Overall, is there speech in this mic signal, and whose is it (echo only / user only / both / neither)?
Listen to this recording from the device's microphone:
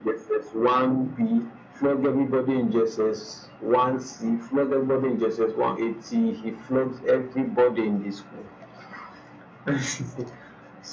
echo only